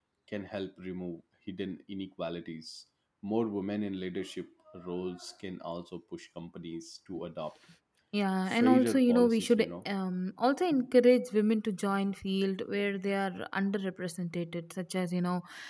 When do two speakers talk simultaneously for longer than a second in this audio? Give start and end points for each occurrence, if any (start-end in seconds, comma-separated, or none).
8.5-9.7